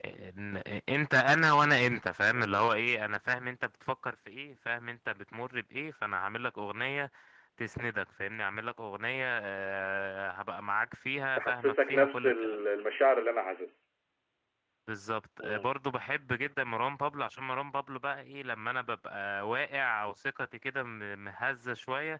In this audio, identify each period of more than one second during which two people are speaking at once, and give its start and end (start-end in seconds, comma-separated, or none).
11.4-12.6